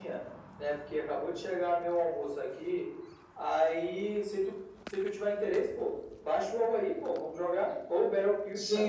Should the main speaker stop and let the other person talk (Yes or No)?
Yes